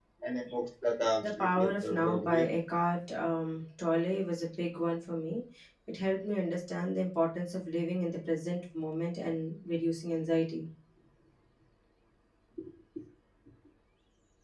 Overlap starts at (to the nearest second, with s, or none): 1 s